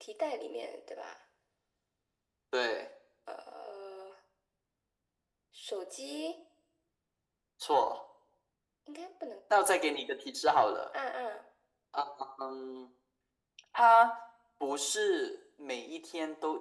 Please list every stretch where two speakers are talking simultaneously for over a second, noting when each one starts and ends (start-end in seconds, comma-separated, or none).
none